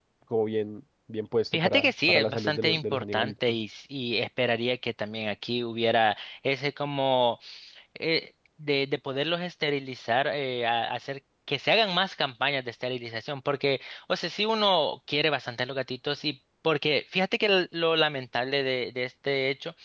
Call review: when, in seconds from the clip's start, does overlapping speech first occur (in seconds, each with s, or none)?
1.5 s